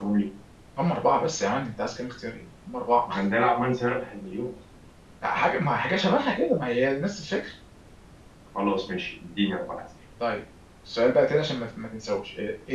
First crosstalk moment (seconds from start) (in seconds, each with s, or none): none